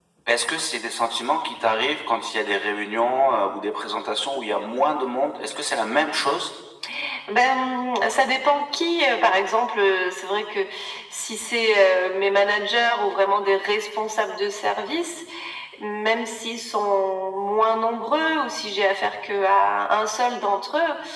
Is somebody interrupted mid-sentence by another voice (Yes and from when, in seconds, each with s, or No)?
No